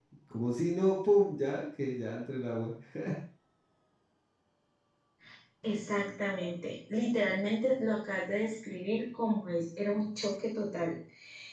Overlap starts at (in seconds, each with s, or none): none